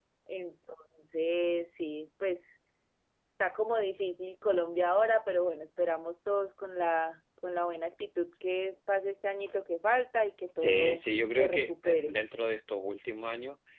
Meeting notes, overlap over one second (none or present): present